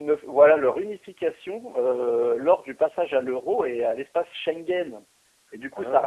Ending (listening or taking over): listening